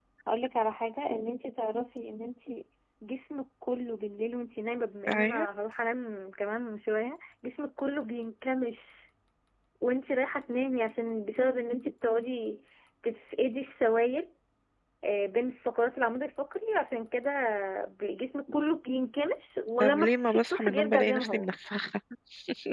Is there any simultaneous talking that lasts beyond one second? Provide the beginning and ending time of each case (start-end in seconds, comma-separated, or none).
19.8-21.4